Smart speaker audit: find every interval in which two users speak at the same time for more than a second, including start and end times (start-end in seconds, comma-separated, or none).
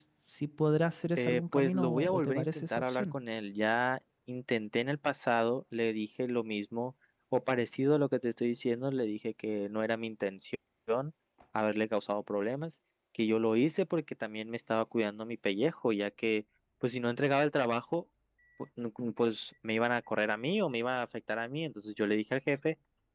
1.2-3.1